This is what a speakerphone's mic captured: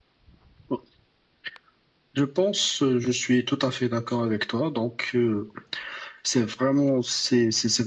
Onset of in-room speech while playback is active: none

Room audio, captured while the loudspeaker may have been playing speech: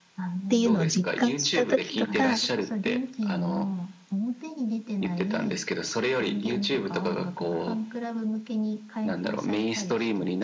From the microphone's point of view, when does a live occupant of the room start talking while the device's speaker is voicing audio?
0.5 s

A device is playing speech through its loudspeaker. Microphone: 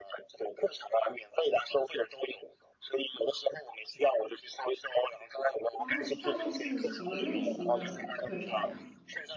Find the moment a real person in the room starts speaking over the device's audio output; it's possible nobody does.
5.8 s

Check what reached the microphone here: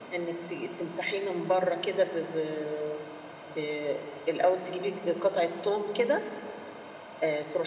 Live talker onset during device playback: none

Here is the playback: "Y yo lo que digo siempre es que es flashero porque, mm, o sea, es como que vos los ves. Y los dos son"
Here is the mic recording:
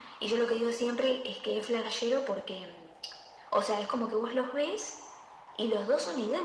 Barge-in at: none

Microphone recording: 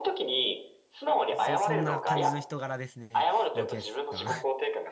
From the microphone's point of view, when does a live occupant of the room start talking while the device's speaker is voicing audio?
1.3 s

